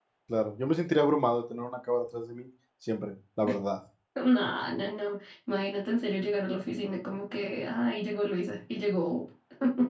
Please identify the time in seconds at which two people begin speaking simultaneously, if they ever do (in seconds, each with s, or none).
none